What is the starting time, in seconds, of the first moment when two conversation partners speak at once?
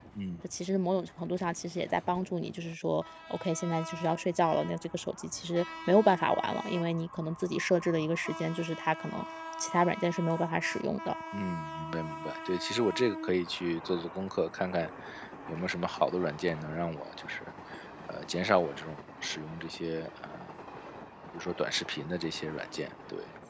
none

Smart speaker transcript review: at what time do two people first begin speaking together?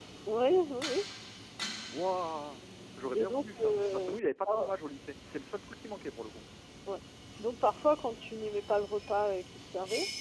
3 s

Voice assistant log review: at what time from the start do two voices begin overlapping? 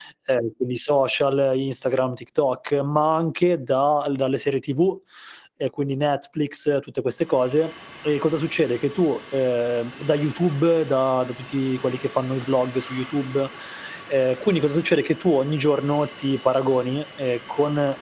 none

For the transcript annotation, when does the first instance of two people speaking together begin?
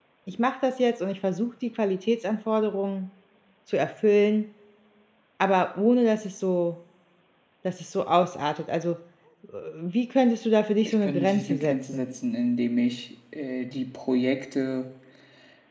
11 s

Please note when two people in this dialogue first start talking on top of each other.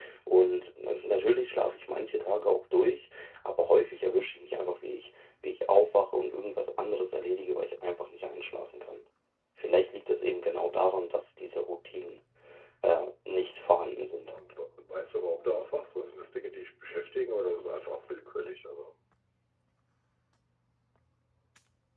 none

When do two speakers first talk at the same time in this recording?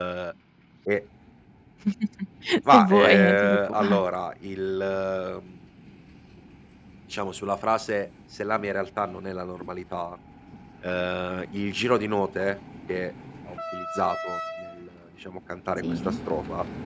3 s

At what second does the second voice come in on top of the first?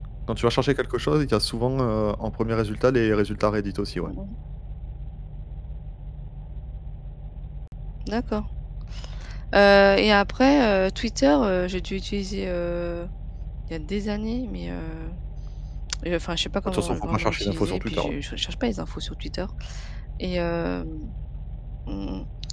17 s

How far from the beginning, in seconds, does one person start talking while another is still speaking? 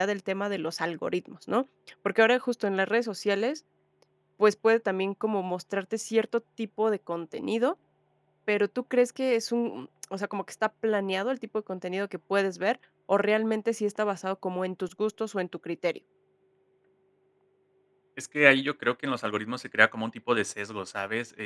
none

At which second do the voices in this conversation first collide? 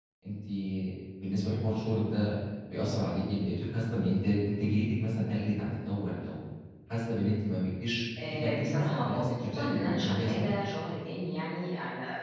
8 s

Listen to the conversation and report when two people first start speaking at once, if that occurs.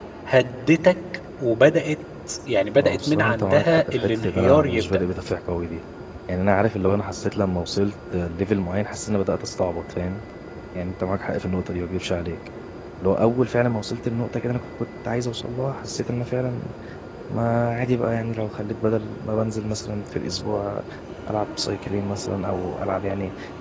3 s

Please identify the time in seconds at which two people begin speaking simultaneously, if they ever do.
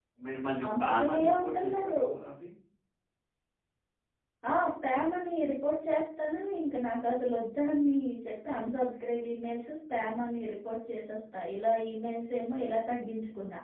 1 s

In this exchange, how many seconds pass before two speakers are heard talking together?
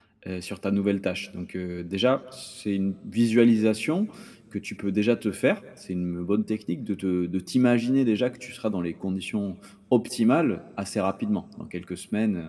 none

